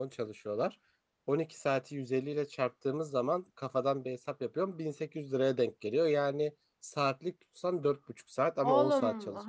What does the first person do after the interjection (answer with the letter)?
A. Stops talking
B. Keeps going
A